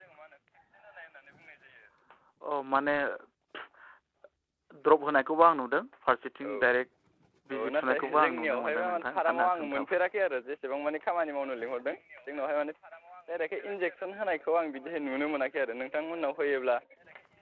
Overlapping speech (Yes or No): Yes